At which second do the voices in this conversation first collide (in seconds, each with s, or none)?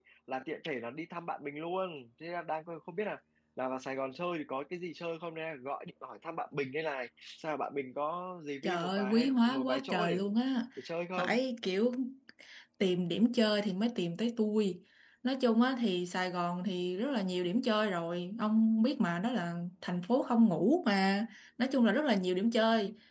8.6 s